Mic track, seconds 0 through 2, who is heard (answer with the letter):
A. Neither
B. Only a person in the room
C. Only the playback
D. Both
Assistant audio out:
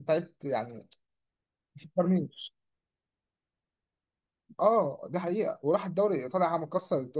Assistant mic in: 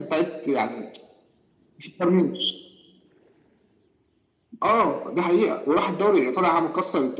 C